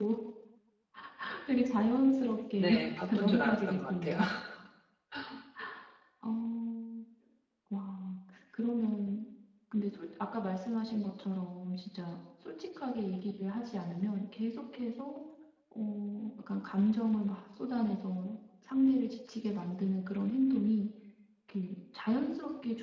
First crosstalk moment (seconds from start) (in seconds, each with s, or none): 2.6 s